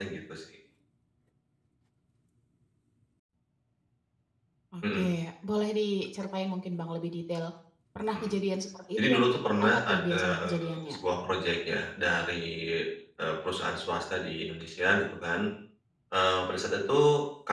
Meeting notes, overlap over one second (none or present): present